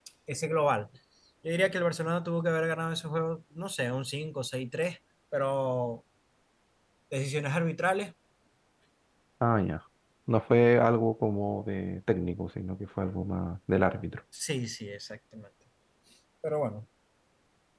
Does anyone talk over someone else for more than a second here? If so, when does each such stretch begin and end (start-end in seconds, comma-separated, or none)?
none